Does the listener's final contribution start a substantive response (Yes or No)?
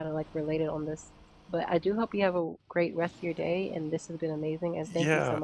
Yes